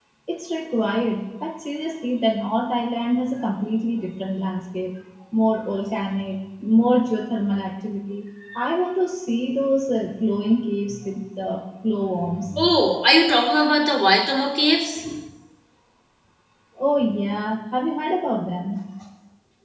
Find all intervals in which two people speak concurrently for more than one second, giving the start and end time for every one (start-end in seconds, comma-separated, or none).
none